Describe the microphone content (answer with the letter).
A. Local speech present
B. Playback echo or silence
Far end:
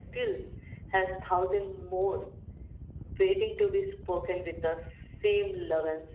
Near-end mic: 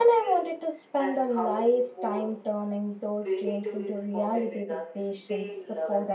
A